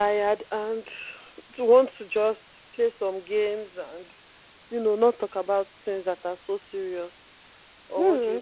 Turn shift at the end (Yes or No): Yes